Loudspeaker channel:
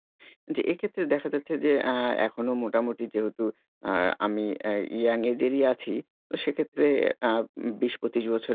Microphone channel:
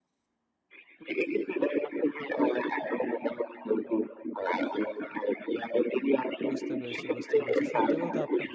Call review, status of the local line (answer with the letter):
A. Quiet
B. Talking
B